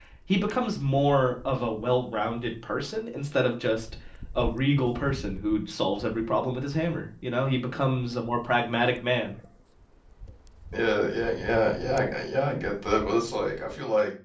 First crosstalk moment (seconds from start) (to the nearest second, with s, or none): none